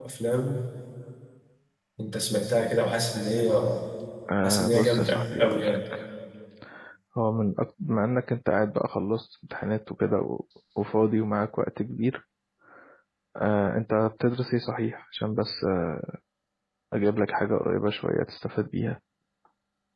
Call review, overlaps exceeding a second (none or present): present